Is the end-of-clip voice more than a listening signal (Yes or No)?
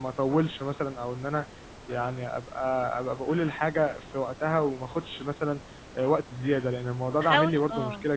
Yes